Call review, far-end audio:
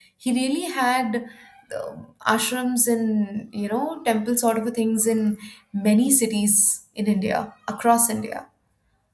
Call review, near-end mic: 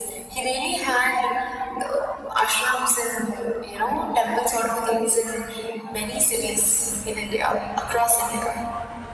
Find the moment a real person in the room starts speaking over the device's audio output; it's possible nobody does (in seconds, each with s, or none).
none